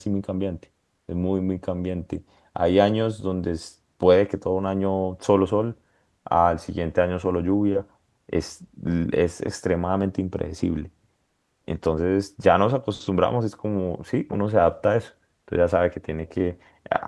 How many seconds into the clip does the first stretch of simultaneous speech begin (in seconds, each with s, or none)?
none